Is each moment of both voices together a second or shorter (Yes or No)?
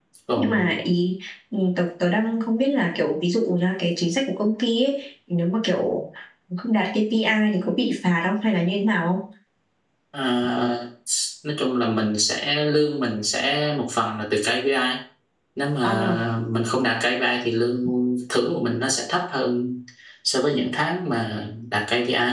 Yes